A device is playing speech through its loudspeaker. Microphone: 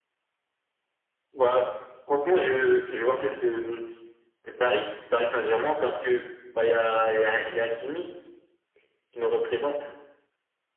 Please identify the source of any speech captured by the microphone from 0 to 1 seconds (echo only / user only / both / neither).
neither